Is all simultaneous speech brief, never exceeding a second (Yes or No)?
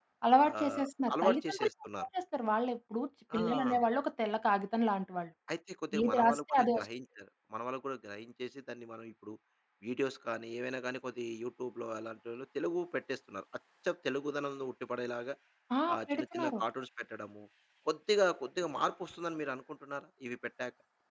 No